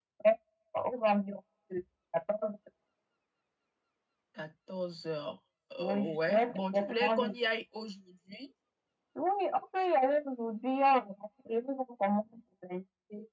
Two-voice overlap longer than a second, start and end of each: 5.8-7.3

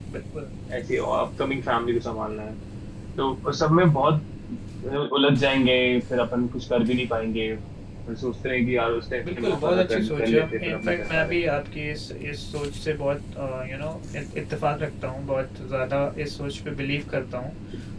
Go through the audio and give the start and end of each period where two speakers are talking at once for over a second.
9.2-11.3

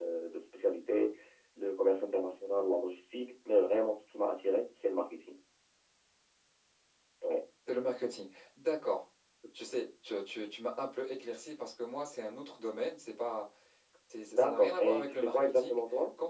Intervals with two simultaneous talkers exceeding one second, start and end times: 14.3-15.8

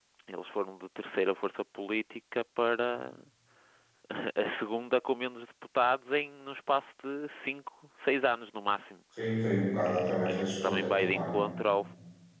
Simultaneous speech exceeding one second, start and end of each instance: 9.8-11.3

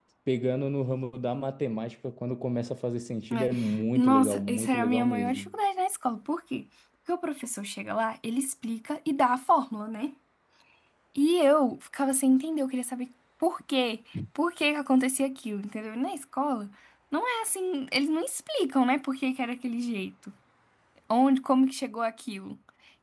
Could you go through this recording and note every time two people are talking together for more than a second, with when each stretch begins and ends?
4.0-5.5

